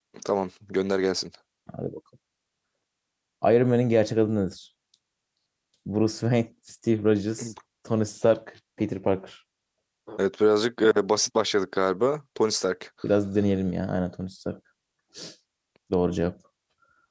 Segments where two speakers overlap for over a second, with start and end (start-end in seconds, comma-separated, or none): none